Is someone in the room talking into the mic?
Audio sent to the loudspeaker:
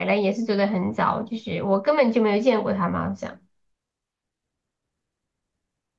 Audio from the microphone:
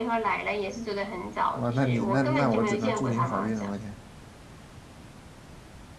Yes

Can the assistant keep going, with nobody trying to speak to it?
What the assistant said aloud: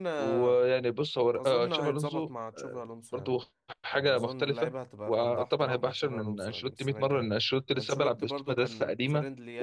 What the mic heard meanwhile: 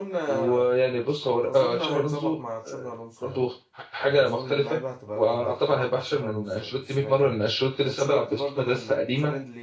Yes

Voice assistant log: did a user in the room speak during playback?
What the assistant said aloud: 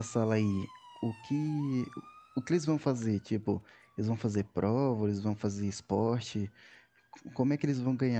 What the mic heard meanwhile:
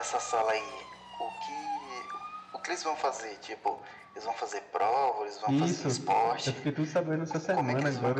Yes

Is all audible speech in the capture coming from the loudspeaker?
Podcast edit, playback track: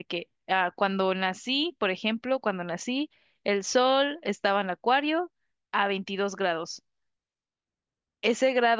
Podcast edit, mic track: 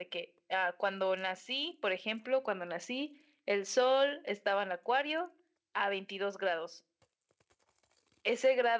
Yes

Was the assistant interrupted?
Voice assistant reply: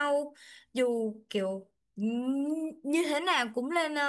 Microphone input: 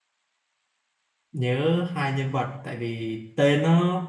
Yes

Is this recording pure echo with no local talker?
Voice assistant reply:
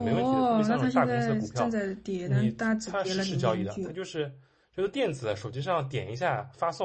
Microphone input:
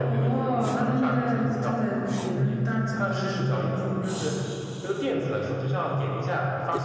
Yes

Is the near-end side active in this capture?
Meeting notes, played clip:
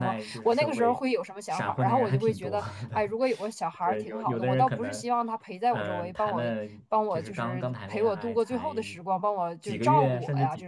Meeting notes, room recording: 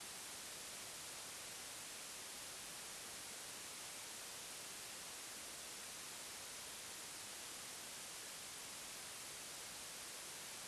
No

